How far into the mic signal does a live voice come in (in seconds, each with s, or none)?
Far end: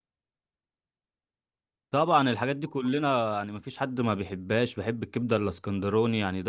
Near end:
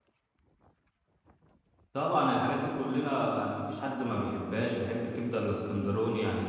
none